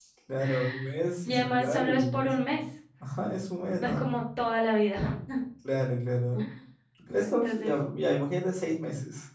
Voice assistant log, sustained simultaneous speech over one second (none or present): present